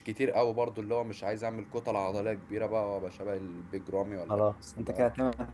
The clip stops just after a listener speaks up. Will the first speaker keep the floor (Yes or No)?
No